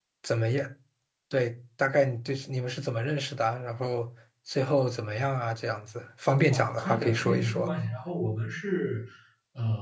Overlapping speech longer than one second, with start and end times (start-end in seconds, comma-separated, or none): 6.4-7.7